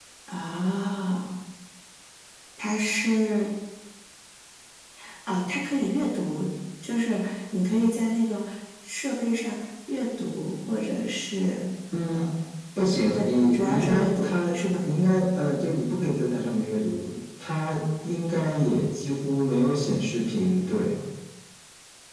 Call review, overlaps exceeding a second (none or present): present